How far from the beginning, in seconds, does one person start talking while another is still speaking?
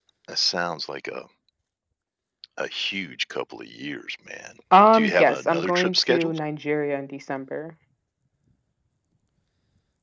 4.9 s

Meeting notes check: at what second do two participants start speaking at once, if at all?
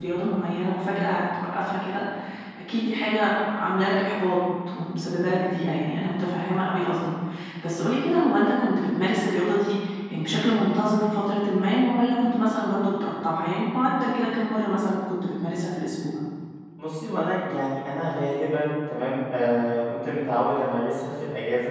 none

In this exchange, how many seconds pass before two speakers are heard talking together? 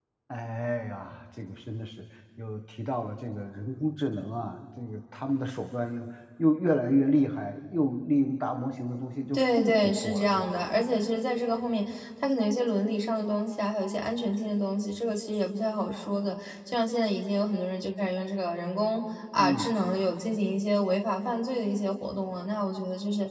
9.3 s

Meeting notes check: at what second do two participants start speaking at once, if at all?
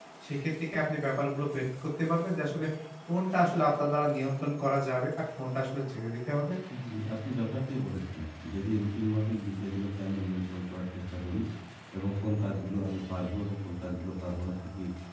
none

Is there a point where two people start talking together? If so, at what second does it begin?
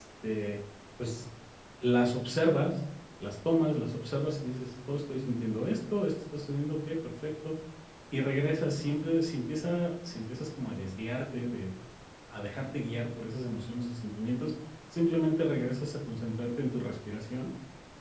none

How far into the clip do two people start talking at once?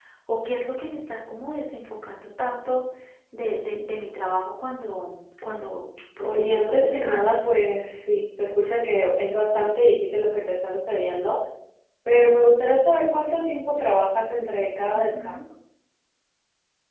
6.2 s

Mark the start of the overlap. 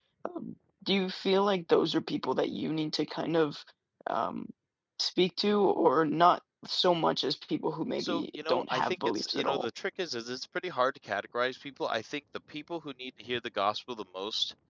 8.0 s

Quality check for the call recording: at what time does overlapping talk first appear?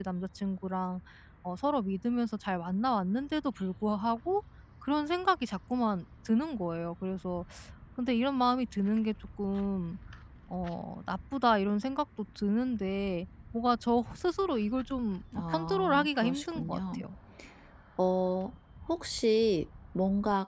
15.3 s

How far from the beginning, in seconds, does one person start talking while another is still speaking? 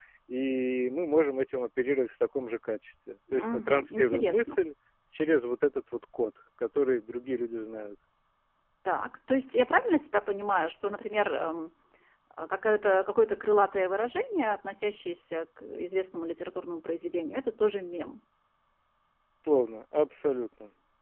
3.3 s

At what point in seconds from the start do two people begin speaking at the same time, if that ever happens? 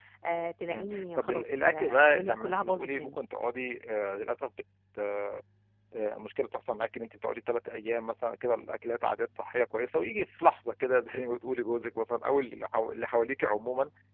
0.7 s

